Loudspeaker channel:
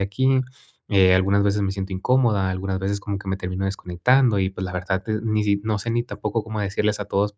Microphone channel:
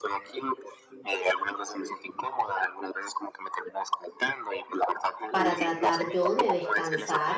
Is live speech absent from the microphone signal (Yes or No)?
No